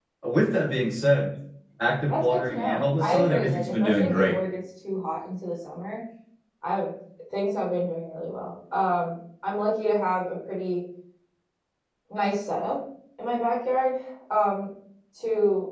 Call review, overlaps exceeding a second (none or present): present